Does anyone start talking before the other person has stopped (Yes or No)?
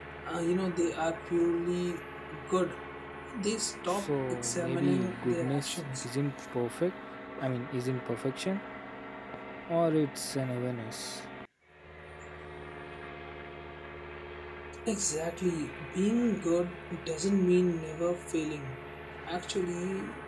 Yes